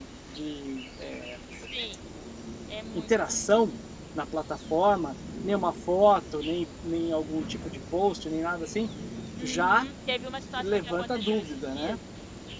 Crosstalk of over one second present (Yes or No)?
Yes